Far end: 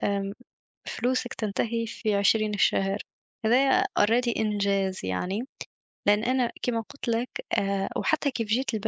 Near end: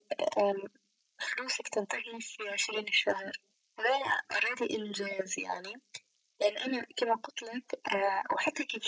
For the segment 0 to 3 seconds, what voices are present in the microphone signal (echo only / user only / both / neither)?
echo only